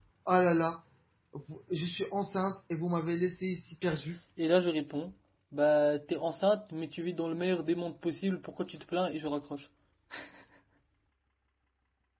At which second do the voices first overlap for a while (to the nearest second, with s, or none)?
none